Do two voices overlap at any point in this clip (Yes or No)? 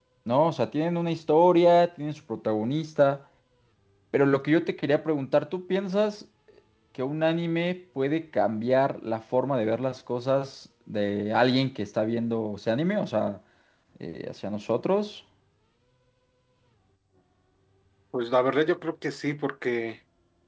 No